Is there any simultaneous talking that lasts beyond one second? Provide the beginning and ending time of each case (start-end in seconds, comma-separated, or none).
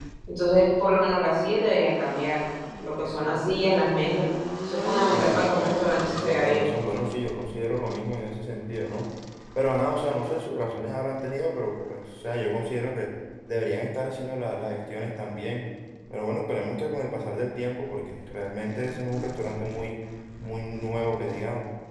5.1-6.7